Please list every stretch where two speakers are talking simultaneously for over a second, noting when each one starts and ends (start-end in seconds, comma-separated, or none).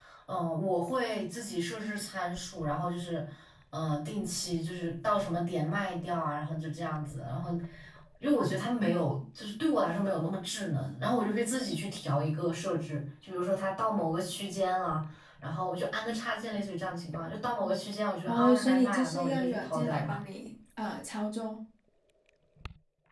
18.3-20.2